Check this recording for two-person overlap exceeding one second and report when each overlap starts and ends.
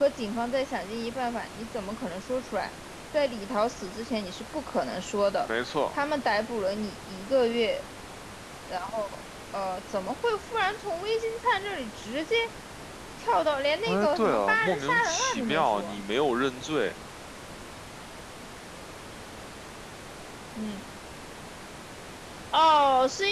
13.9-16.0

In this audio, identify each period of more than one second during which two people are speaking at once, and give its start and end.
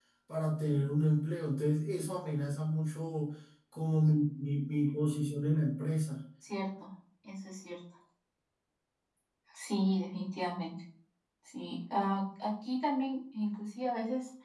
none

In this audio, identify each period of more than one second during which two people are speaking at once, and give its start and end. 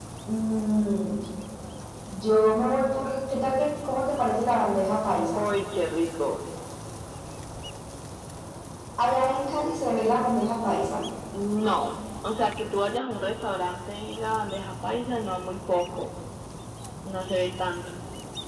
none

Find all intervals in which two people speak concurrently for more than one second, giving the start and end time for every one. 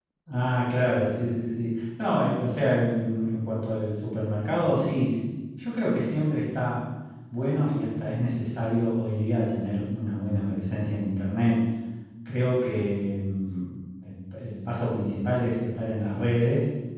none

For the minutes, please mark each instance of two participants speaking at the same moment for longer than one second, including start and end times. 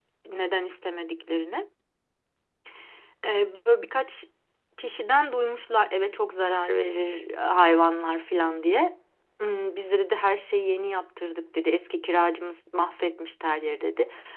none

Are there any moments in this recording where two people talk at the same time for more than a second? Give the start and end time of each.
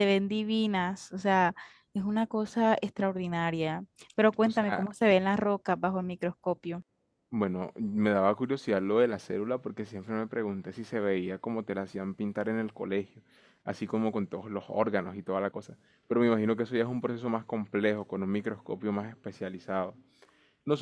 none

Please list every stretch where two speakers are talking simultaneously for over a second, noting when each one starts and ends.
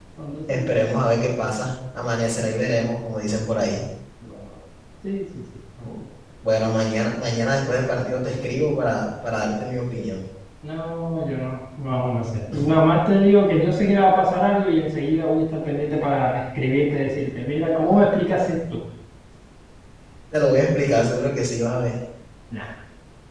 none

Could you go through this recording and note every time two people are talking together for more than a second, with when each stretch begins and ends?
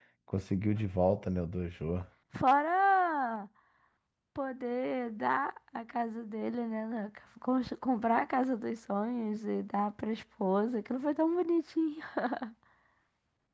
none

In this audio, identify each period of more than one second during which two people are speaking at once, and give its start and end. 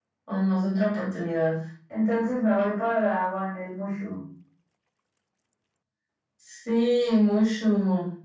none

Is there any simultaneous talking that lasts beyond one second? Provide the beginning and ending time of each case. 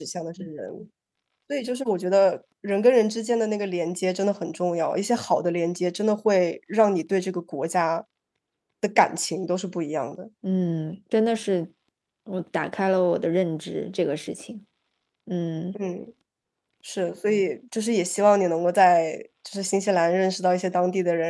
none

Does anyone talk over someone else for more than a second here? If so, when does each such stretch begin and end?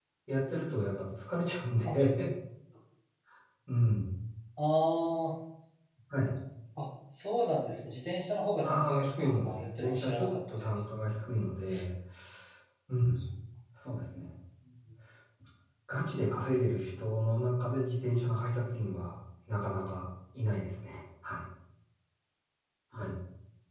8.6-10.7

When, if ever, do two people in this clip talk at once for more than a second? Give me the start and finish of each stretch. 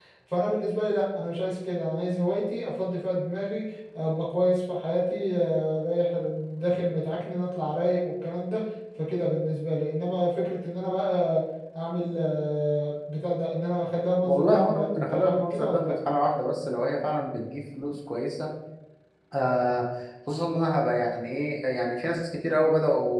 14.2-15.8

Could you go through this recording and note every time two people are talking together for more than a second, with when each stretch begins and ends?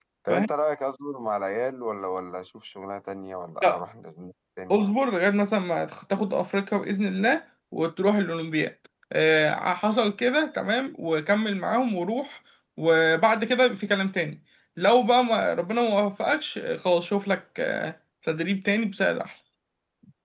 none

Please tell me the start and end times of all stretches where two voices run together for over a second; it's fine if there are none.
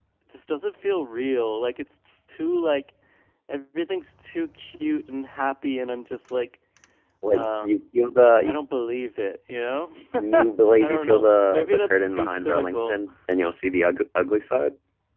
10.8-13.0

